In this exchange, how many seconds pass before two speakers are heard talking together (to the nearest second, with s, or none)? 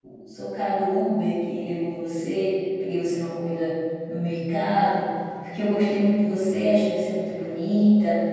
none